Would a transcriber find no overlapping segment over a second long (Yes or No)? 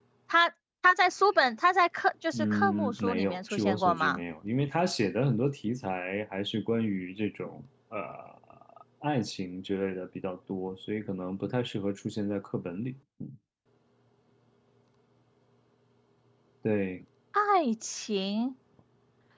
No